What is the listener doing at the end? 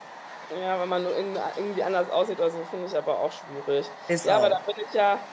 listening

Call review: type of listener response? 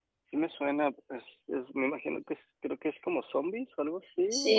taking over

